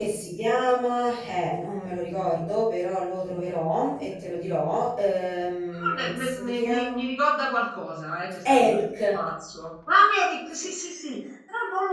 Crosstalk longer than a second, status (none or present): present